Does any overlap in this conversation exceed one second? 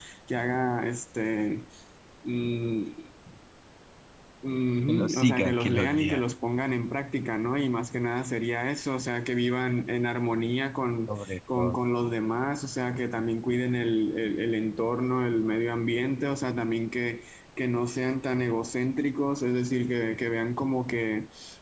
Yes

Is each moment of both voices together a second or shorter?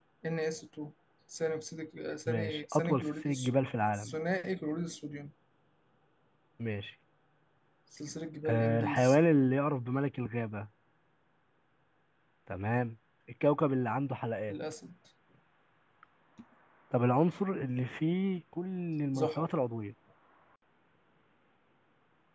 No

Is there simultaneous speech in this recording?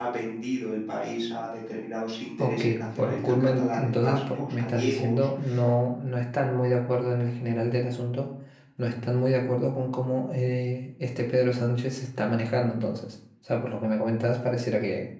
Yes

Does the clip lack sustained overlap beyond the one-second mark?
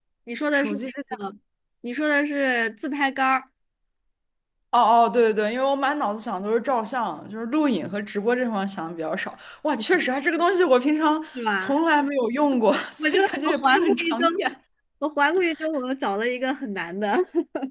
No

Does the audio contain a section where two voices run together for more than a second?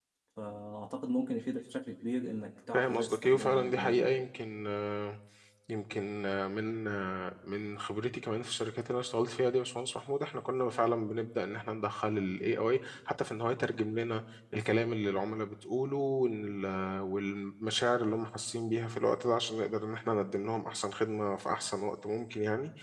Yes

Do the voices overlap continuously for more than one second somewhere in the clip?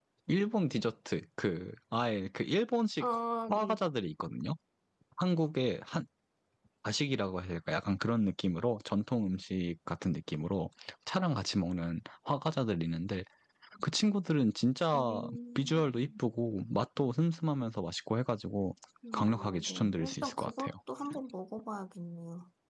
Yes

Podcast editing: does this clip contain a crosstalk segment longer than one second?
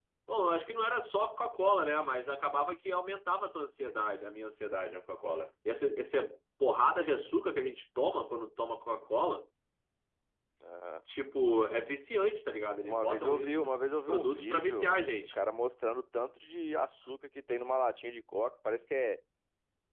Yes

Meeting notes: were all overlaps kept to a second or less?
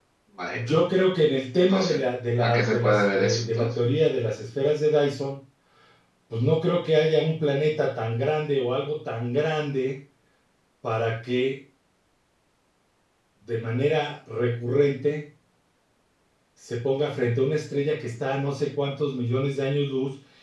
No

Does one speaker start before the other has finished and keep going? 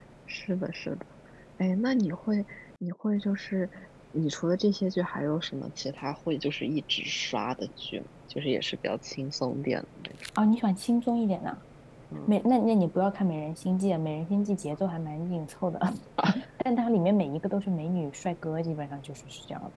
No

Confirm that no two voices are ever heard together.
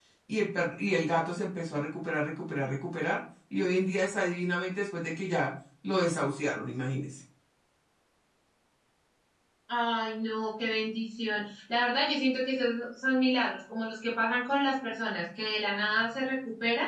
Yes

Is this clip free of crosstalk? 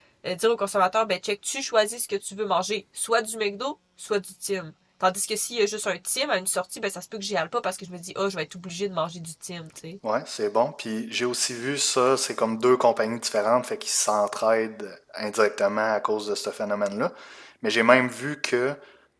Yes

